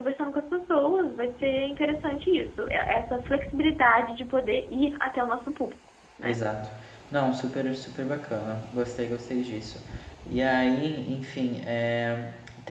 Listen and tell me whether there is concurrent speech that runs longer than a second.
No

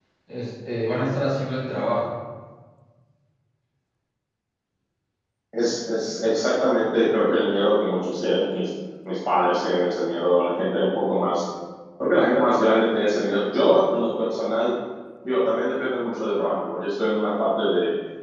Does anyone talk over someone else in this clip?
No

